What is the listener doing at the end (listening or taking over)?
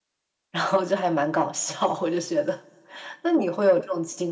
listening